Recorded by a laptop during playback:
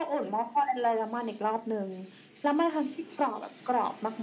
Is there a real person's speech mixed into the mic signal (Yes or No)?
No